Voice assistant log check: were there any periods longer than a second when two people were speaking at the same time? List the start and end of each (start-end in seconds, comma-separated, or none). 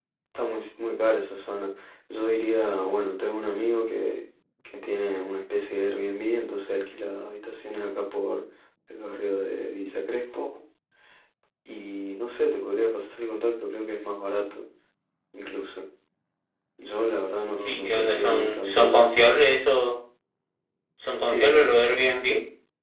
17.6-19.1